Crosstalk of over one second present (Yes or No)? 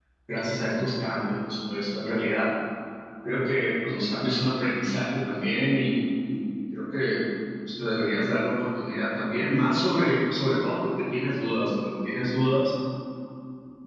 No